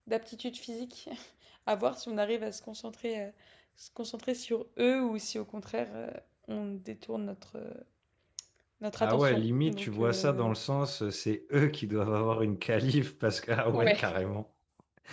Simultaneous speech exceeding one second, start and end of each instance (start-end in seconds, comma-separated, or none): 9.0-10.5